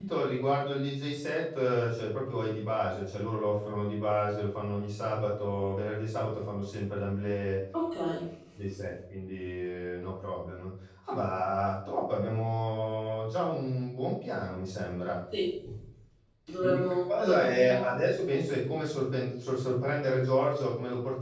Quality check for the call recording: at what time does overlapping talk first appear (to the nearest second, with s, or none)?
17 s